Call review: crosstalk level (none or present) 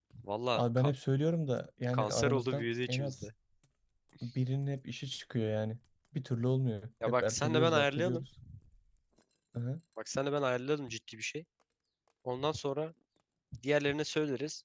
present